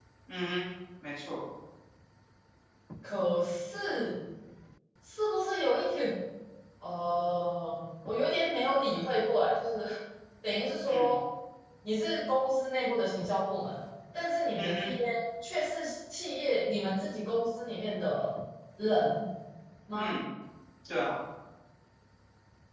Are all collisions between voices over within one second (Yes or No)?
Yes